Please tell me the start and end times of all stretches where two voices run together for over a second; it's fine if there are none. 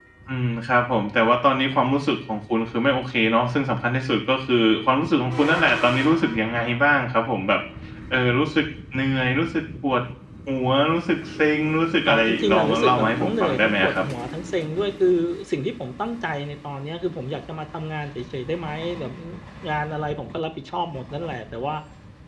12.1-14.1

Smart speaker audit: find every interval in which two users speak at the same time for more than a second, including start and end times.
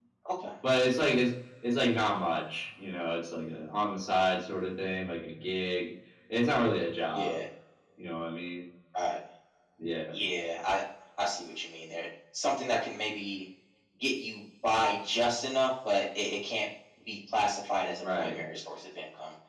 none

